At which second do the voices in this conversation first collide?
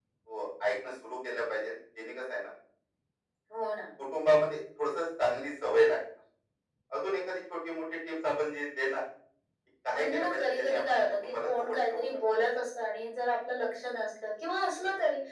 9.9 s

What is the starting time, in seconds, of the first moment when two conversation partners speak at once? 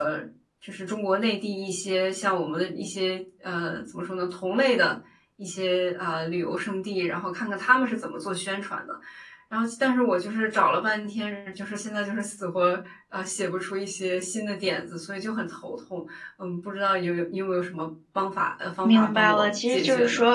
18.8 s

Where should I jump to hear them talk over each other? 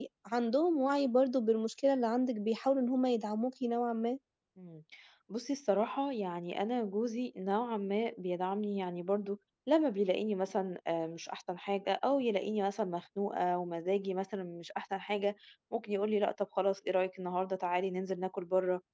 none

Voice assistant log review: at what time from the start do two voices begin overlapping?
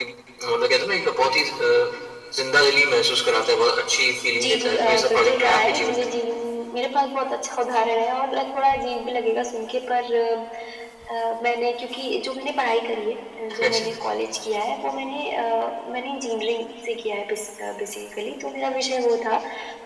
4.4 s

